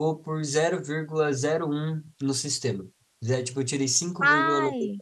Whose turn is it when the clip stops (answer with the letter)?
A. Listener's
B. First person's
B